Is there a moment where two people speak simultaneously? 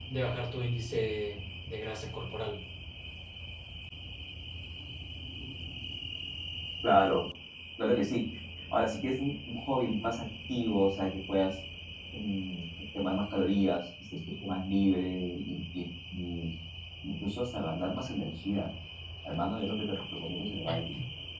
No

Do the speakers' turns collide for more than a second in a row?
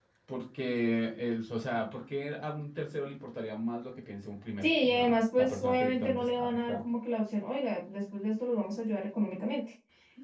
Yes, from 4.6 s

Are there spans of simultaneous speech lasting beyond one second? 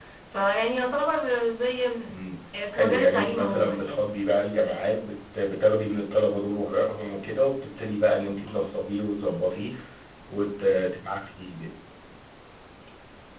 Yes, from 2.7 s

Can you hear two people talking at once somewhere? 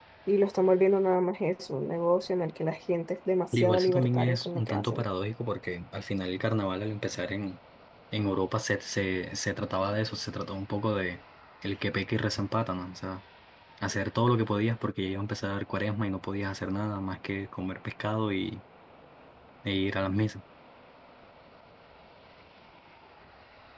Yes, from 3.5 s

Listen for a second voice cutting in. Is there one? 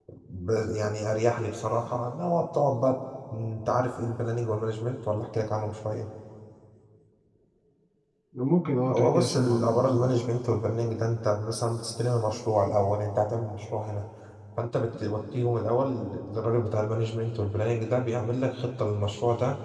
Yes, from 8.9 s

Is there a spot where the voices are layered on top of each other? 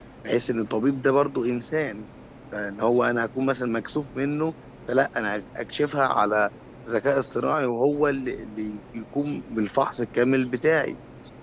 No

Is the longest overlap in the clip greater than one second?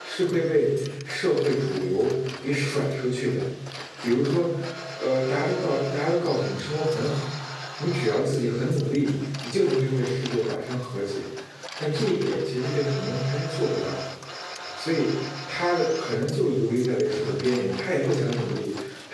No

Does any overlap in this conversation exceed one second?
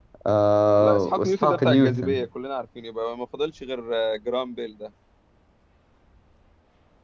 Yes, from 0.8 s

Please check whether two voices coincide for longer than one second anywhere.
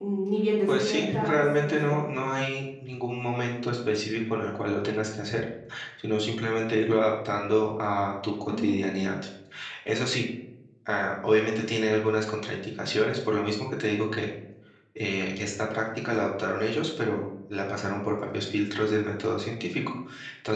Yes, from 0.7 s

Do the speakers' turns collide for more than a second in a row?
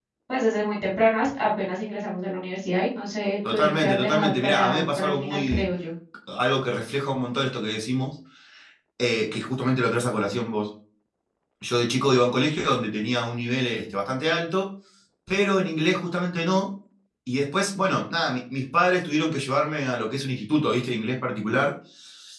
Yes, from 3.4 s

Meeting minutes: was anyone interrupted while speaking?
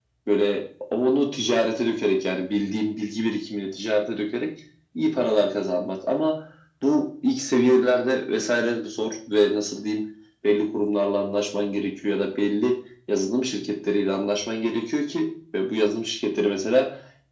No

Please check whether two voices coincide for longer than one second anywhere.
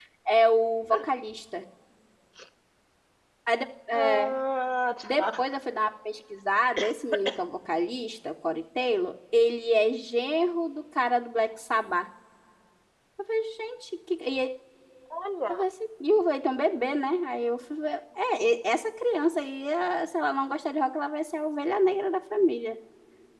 No

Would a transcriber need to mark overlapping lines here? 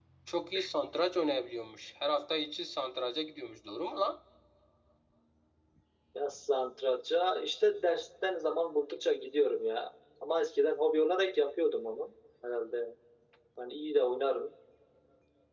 No

